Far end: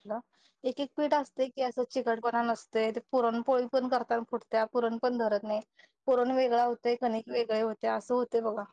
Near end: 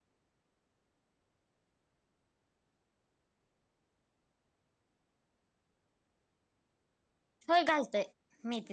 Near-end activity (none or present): present